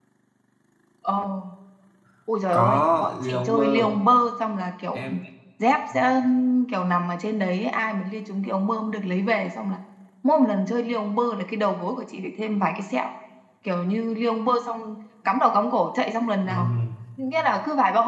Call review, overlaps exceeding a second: present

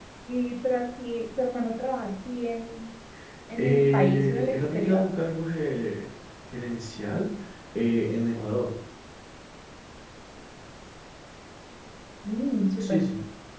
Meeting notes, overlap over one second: present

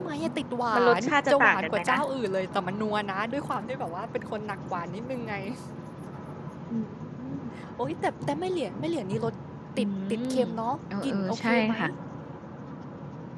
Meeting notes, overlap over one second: present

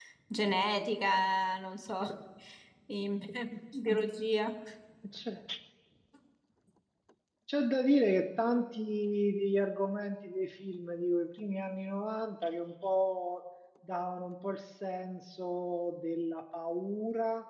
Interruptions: none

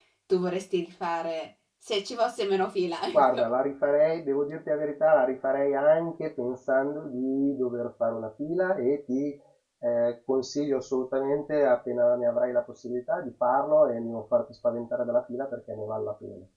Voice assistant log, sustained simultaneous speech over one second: none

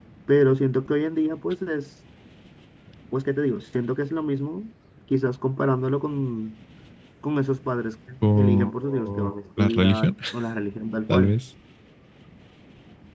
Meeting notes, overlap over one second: present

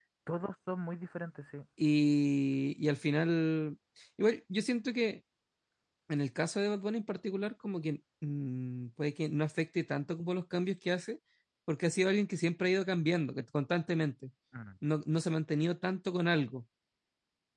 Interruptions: none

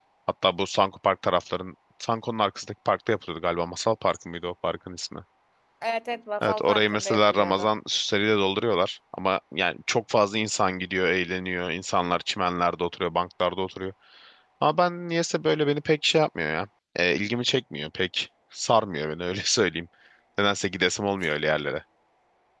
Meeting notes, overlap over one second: present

